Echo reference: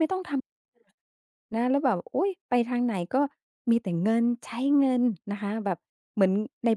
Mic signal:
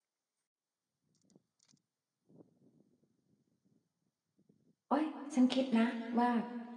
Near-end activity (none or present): present